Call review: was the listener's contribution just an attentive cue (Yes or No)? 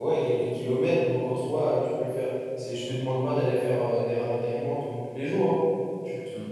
Yes